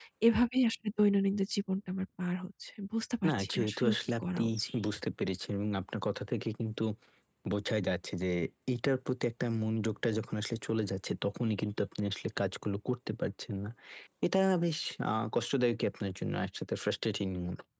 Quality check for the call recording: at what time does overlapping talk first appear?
3.2 s

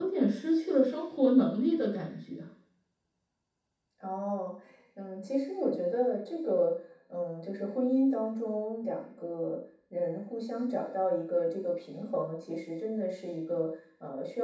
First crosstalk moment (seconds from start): none

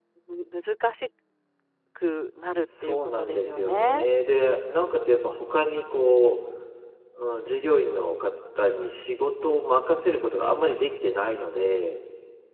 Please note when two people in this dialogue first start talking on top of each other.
2.8 s

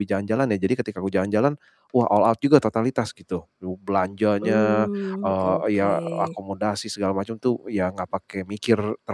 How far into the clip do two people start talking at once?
4.4 s

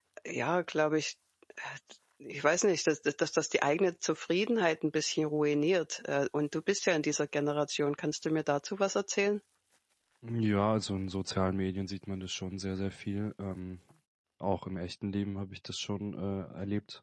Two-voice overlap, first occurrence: none

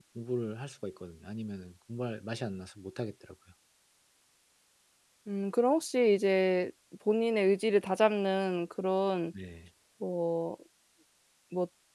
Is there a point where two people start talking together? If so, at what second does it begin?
none

